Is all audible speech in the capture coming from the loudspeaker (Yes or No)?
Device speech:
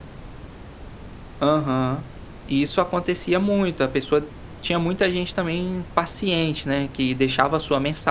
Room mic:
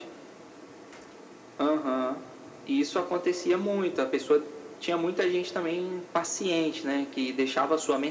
Yes